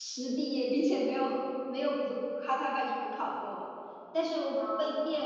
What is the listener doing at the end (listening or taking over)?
listening